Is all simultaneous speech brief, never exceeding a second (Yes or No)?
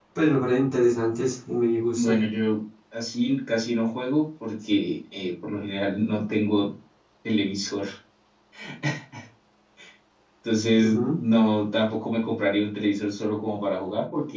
Yes